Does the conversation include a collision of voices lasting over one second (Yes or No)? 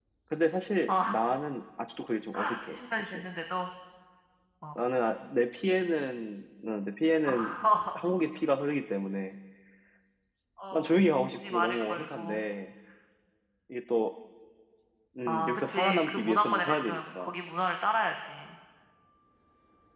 Yes